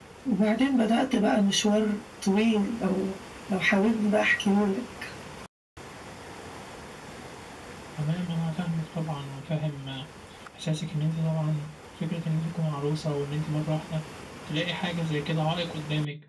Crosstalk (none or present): none